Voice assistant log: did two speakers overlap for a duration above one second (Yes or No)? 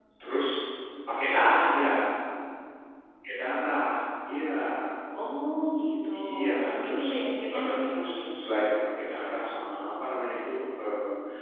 Yes